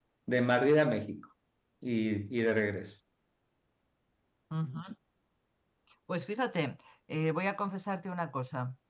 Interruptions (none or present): none